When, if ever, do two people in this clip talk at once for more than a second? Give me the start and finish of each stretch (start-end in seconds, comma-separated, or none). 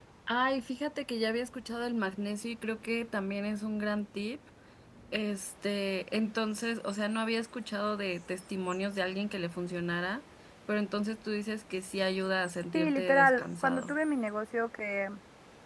12.7-13.9